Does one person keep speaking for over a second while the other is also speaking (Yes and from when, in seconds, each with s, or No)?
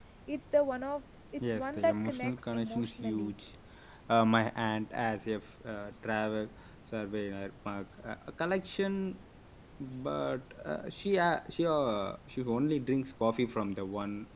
Yes, from 1.4 s